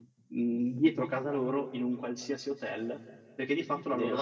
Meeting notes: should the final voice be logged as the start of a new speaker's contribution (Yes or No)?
No